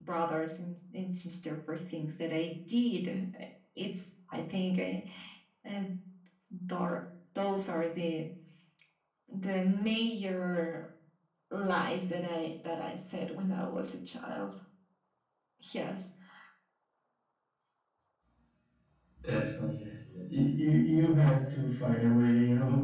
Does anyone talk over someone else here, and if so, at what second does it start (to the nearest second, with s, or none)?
none